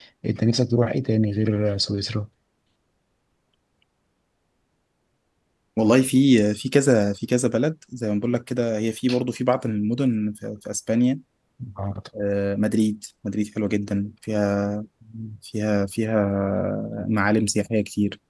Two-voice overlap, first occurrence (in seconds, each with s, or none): none